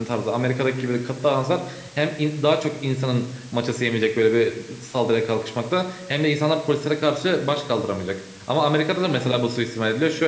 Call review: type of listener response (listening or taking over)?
listening